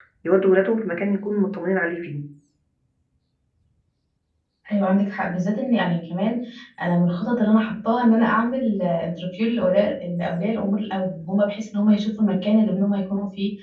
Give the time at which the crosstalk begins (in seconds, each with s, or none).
none